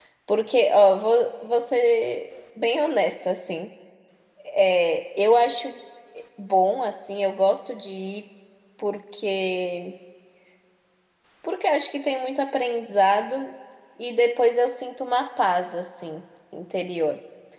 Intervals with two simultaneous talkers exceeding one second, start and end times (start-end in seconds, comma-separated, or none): none